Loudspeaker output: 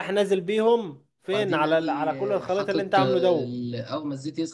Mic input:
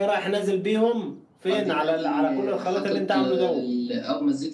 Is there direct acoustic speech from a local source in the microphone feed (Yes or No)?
No